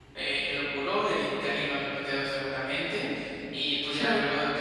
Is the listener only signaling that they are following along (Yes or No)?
Yes